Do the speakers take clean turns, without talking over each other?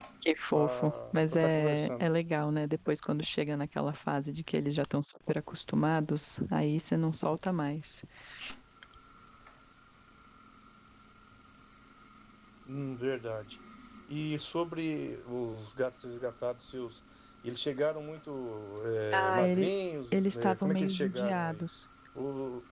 No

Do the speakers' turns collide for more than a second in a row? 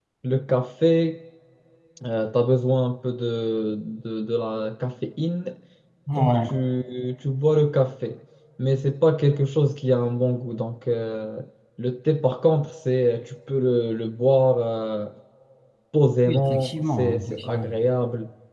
Yes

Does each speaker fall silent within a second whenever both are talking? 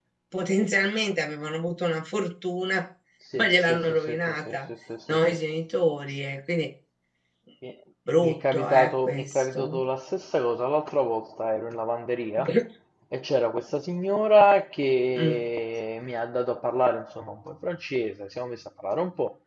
No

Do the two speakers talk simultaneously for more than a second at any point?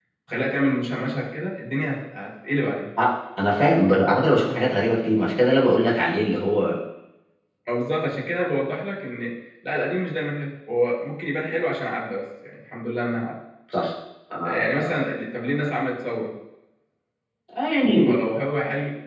No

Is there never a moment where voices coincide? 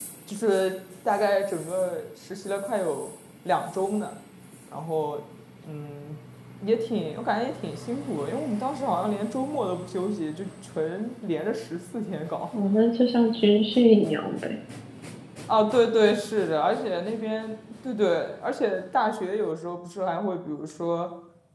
Yes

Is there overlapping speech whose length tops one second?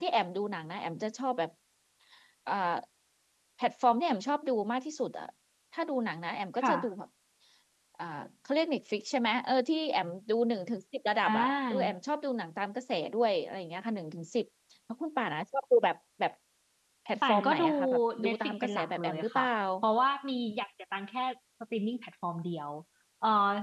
Yes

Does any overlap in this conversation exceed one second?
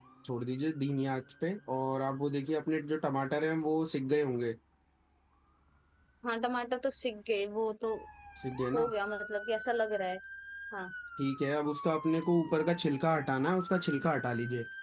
No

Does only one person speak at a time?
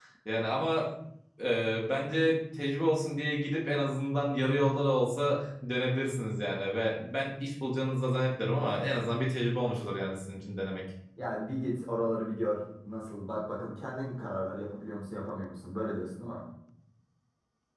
Yes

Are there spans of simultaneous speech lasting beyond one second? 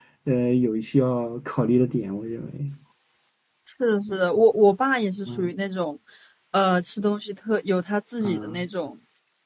No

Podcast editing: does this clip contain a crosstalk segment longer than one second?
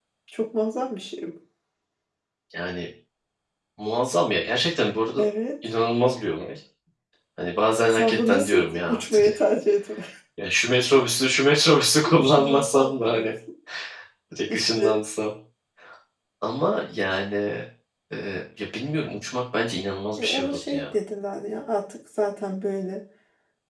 Yes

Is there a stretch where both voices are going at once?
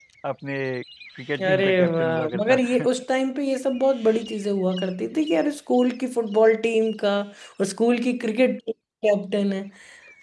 Yes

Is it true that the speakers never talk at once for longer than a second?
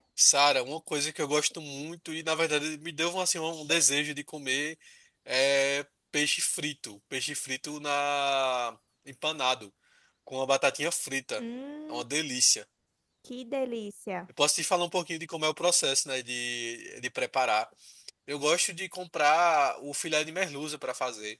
Yes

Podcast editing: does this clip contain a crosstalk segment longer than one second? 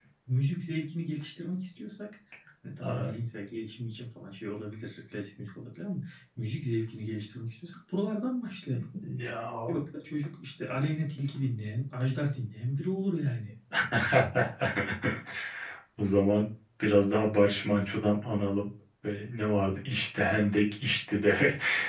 No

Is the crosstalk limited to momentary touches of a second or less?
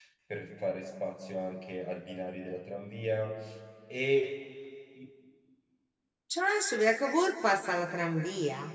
Yes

